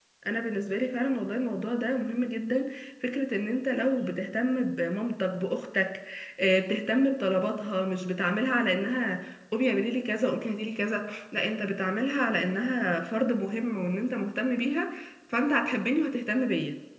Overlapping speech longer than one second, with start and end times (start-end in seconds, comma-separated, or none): none